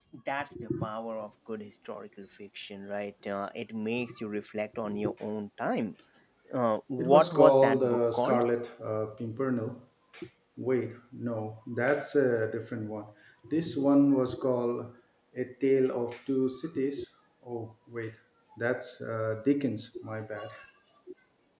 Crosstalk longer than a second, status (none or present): present